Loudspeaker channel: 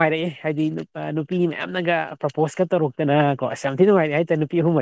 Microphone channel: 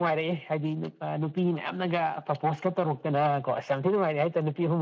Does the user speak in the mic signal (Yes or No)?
No